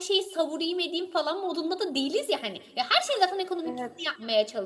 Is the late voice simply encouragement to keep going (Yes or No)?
Yes